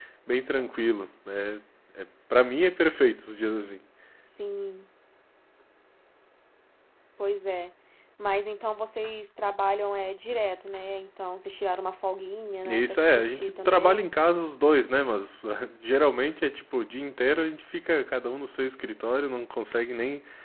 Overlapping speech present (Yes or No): Yes